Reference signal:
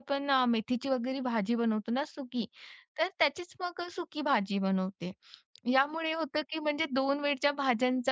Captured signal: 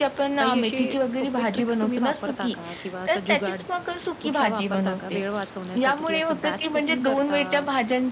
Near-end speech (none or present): present